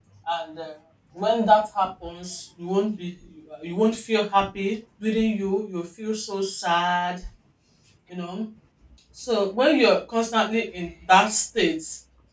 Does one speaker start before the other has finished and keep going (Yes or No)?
No